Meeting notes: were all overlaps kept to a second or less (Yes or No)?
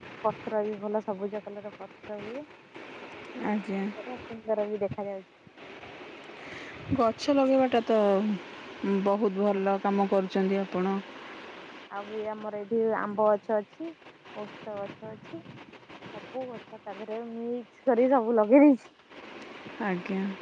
Yes